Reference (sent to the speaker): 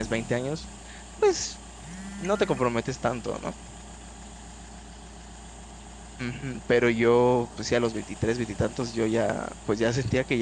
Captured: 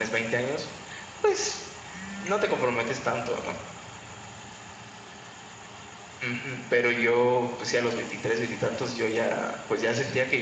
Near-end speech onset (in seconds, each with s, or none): none